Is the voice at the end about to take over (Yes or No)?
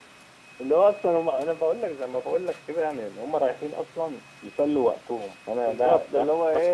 Yes